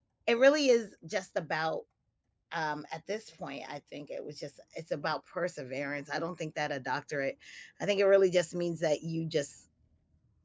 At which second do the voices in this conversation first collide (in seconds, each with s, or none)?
none